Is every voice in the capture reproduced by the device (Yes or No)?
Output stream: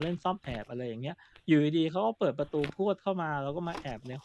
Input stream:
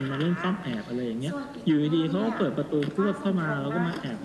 No